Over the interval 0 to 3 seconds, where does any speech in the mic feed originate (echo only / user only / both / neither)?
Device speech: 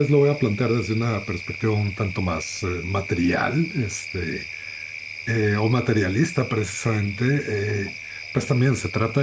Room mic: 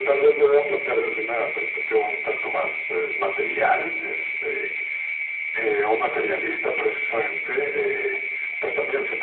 echo only